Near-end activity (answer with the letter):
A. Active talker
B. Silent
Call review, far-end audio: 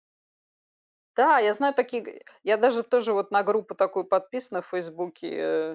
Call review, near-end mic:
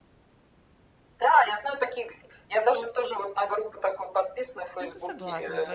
A